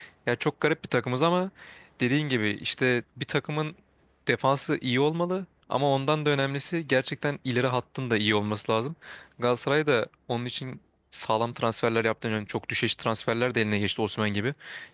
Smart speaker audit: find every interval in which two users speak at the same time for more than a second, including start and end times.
none

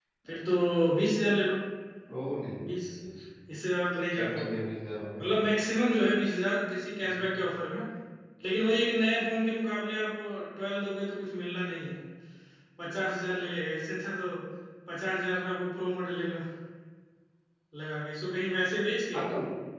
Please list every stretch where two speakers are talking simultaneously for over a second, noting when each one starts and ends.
none

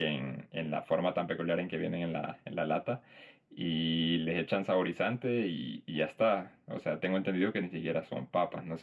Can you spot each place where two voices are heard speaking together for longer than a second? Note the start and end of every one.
none

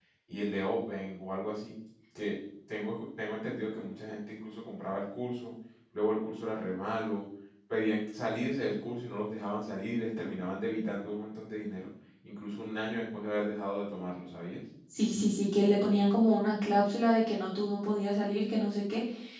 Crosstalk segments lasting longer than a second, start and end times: none

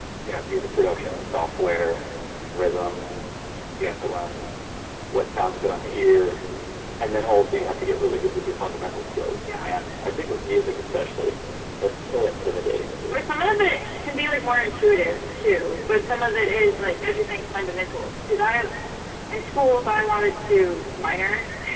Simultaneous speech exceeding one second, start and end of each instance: none

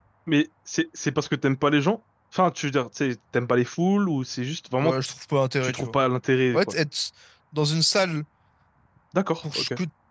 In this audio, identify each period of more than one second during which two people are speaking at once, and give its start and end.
none

